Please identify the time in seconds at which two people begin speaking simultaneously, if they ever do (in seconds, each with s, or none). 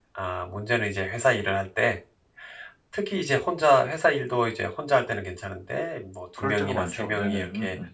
6.4 s